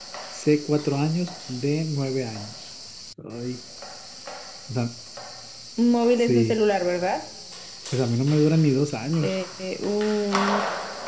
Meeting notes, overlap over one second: none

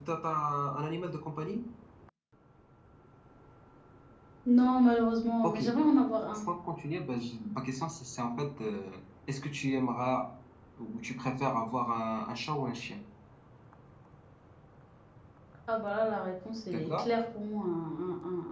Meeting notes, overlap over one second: none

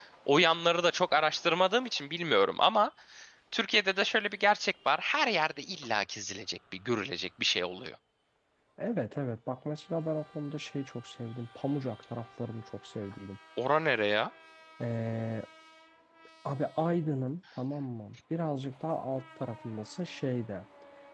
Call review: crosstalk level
none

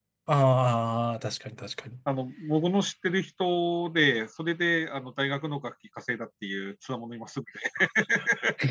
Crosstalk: none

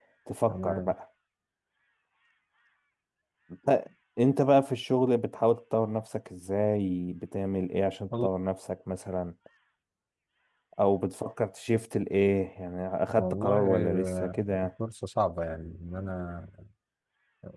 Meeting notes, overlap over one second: present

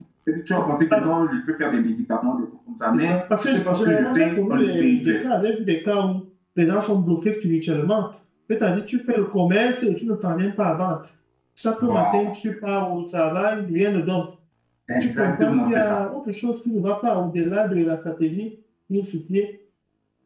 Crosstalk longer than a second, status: present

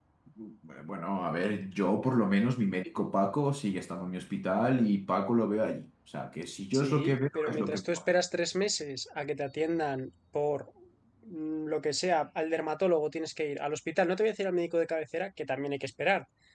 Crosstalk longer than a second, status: present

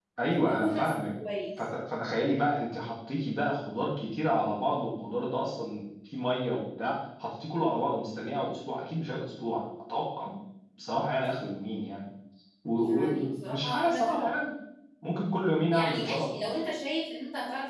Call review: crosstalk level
present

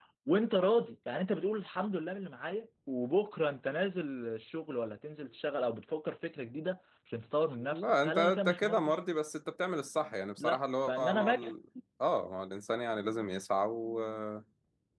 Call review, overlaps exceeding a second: present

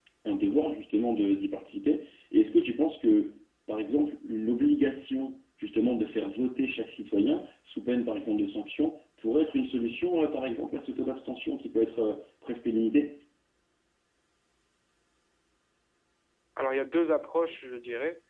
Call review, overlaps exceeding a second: none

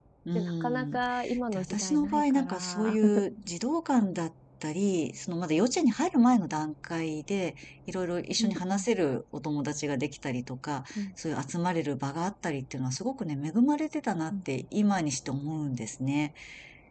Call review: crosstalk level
present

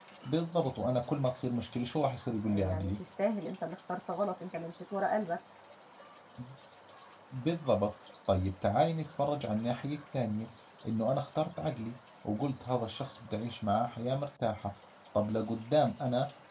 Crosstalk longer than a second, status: none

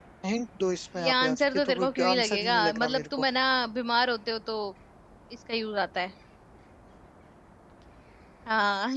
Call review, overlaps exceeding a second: present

